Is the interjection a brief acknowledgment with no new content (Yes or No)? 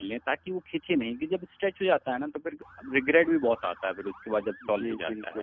No